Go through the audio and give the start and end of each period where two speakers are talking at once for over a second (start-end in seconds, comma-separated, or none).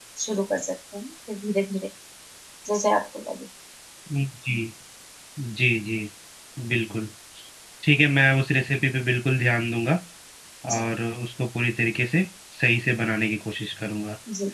none